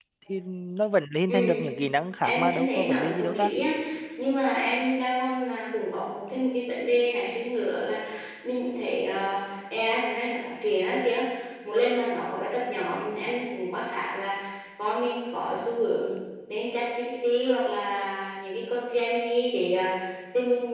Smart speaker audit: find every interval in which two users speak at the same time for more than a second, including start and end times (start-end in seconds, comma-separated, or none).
2.2-3.5